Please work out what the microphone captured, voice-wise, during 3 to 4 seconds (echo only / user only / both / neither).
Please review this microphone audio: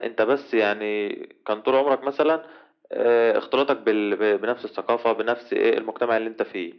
echo only